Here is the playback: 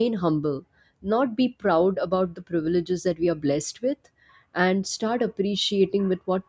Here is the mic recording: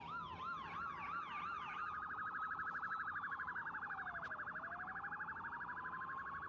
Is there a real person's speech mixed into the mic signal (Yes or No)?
No